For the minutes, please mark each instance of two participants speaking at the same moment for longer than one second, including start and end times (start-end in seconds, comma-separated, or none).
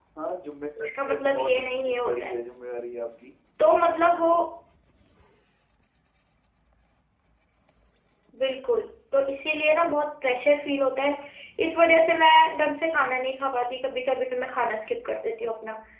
0.8-2.4